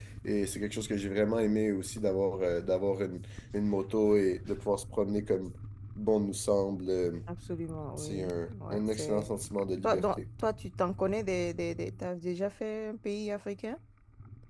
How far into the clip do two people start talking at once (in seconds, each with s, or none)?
8.0 s